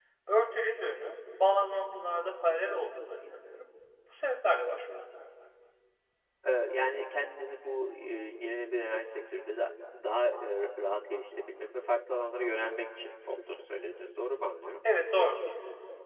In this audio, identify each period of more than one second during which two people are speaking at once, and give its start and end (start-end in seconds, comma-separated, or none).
none